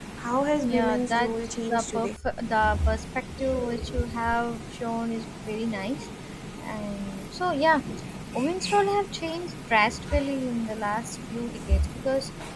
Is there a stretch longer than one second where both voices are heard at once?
Yes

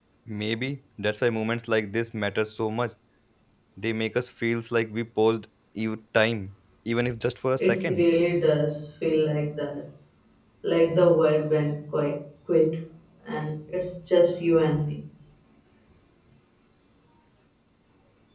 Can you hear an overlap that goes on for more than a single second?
No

